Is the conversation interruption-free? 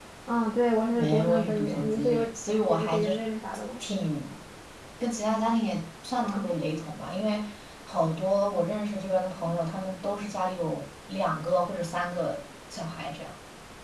No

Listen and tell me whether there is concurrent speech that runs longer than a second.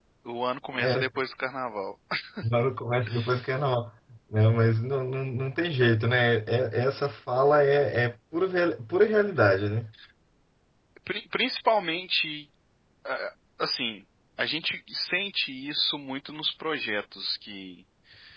No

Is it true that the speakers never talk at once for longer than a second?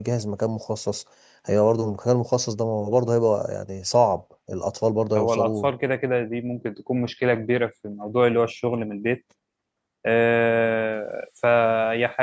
Yes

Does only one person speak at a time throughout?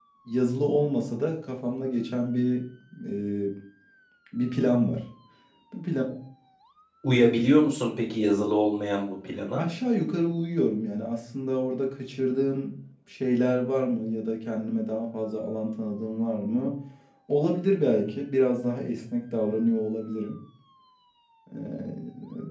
Yes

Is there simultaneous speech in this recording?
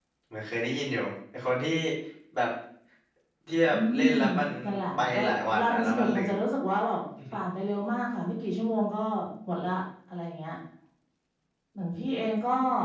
Yes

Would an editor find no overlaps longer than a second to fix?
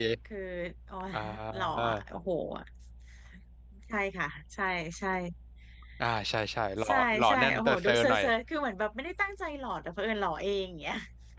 No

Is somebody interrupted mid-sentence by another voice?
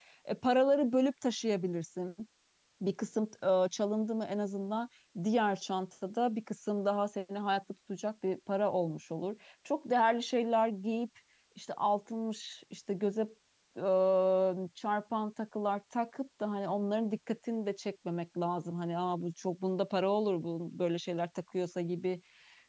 No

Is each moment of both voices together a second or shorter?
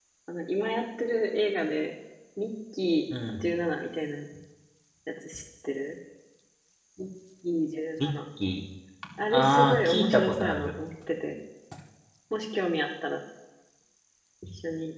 No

